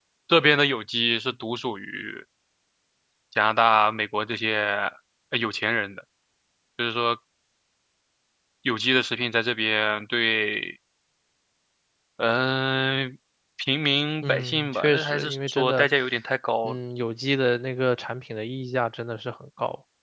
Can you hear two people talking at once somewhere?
Yes, from 14.2 s

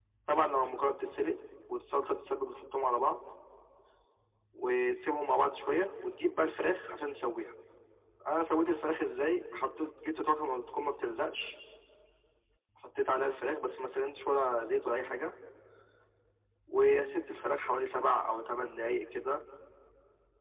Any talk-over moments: No

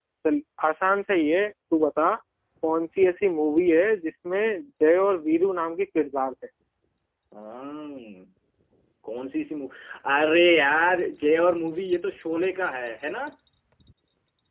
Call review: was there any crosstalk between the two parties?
No

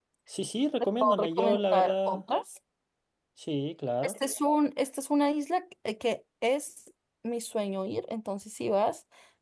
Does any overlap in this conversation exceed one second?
Yes, from 1.0 s

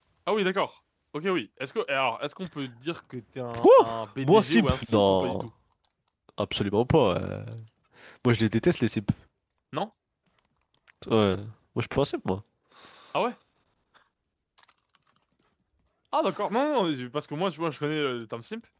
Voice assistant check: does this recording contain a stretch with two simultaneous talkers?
Yes, from 3.5 s

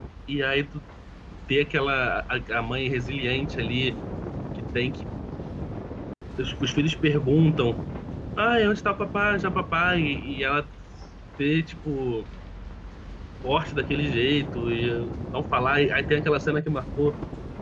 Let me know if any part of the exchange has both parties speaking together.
No

